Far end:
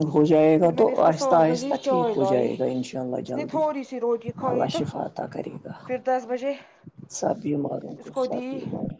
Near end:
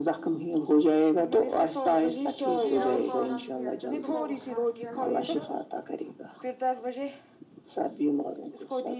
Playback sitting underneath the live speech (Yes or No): No